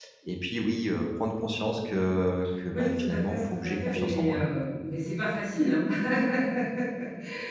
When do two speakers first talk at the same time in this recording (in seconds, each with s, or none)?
2.7 s